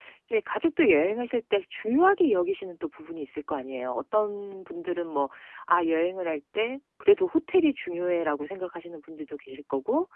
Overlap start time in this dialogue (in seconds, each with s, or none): none